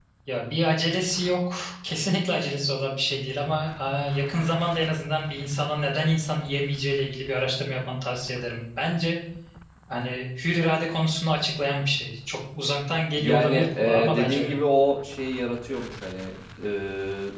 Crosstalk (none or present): present